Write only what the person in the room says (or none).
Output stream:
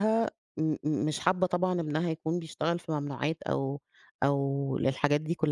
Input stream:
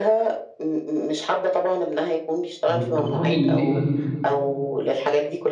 أنتِ تقصدي إن هي